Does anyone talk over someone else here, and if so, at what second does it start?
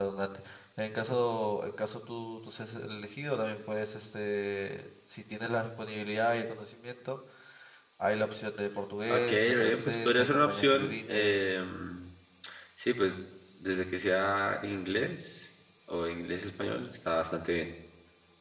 9.0 s

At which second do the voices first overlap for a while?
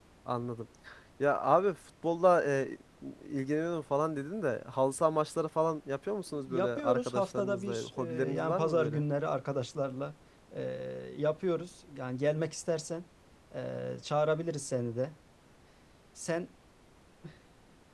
6.3 s

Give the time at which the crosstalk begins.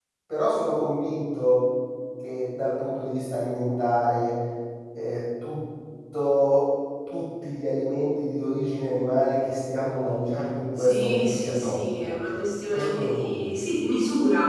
10.8 s

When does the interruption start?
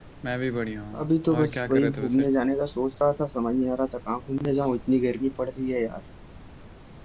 1.0 s

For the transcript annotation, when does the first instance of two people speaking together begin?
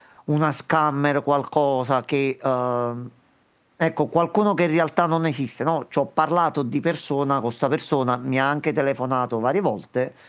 none

